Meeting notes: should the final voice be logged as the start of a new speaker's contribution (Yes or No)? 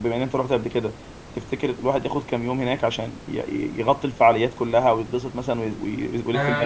Yes